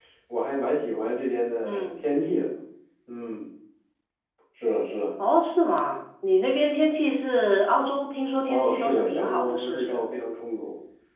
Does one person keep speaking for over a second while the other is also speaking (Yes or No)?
Yes